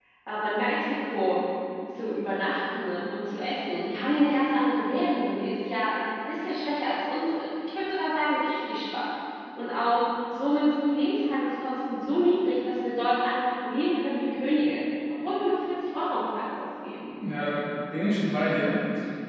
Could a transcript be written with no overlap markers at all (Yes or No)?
Yes